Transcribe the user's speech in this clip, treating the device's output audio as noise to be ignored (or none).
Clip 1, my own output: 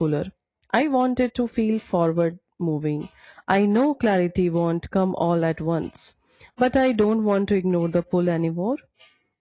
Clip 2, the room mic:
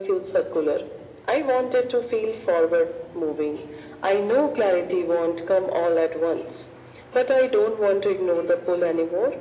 none